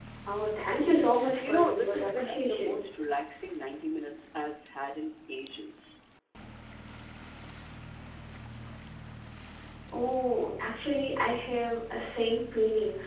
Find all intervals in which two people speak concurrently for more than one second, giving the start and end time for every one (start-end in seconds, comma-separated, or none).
1.5-2.8